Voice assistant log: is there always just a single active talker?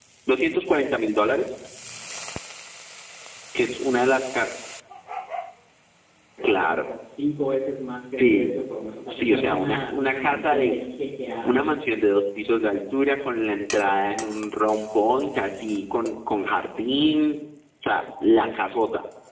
No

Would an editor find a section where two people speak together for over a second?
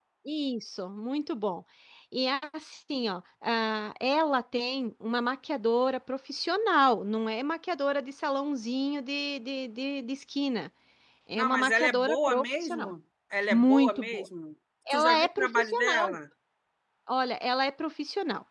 Yes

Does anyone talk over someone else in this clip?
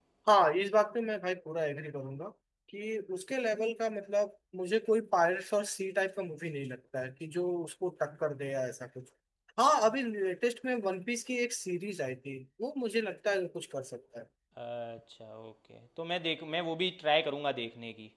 No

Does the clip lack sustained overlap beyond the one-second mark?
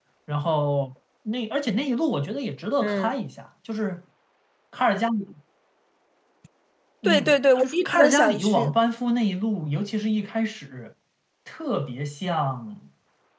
No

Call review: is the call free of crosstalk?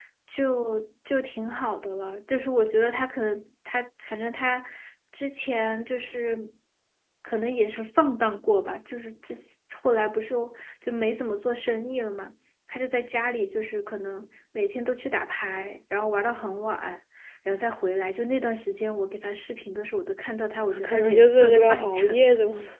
No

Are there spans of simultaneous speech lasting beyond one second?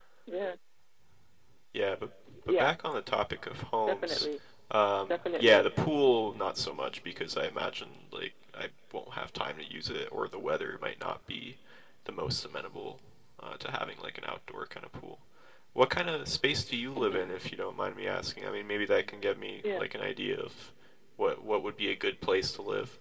No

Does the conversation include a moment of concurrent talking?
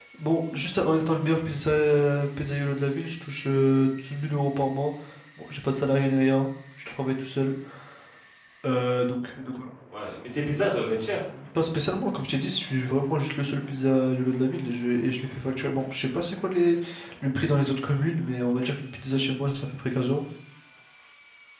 No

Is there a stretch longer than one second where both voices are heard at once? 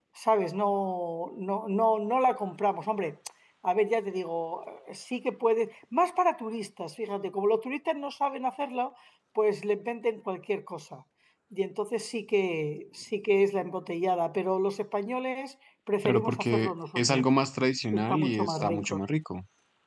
Yes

